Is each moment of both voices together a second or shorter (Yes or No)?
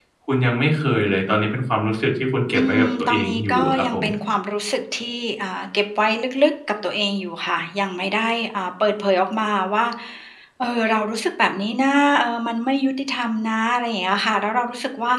No